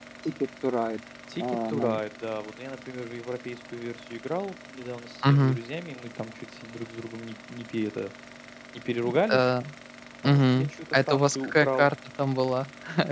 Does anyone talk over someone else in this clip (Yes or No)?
Yes